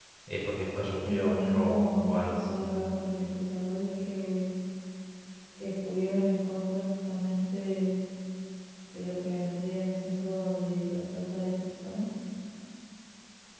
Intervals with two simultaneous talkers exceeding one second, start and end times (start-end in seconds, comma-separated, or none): 1.1-2.4